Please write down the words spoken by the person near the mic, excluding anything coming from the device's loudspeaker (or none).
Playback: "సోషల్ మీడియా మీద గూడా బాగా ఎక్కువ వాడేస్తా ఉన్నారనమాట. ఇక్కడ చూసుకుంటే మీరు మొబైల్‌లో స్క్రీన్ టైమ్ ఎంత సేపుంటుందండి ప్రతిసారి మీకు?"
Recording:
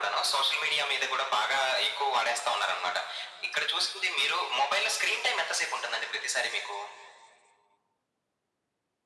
none